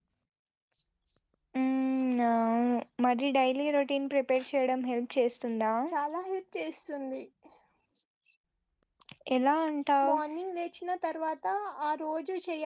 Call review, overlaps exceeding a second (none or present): none